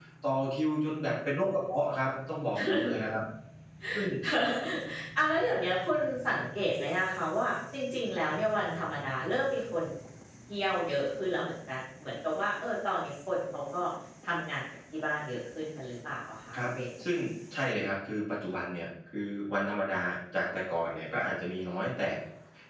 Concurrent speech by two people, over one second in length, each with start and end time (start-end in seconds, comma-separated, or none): none